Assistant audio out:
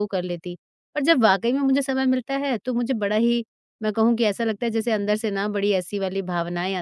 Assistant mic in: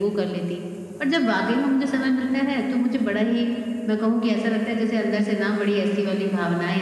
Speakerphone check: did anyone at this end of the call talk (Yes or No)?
No